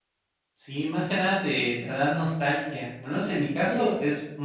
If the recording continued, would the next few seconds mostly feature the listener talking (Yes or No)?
No